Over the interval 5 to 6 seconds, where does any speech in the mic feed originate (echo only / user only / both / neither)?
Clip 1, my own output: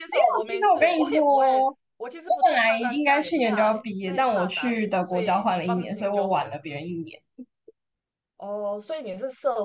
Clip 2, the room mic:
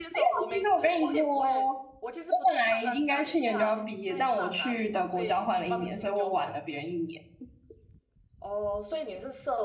echo only